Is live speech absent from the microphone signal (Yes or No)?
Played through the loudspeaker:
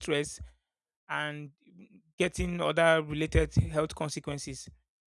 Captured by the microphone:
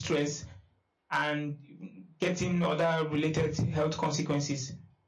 Yes